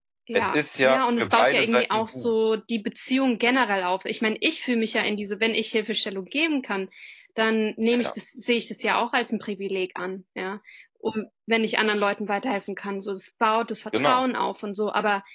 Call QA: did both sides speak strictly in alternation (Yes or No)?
No